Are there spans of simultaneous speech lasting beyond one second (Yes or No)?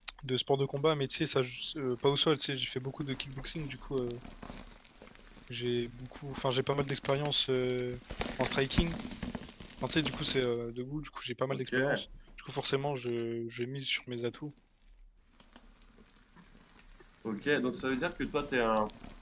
No